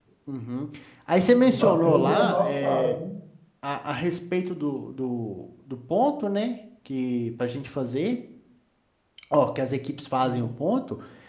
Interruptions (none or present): present